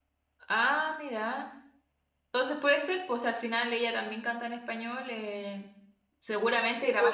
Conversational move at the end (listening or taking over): taking over